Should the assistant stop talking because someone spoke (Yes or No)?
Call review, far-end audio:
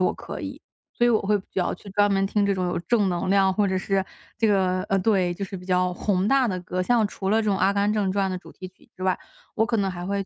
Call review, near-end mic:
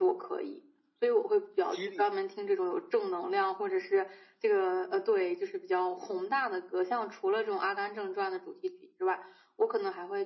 Yes